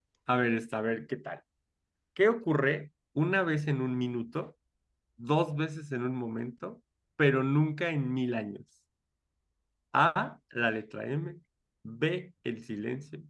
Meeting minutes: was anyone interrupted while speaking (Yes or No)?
No